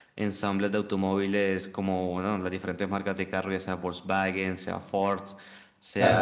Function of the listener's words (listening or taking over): listening